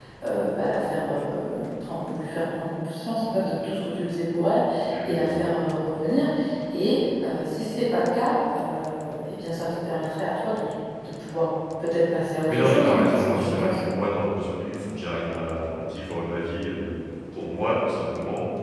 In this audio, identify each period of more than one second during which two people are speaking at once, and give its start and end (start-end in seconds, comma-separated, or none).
12.4-13.8